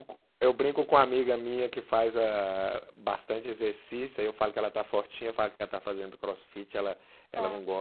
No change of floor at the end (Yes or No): Yes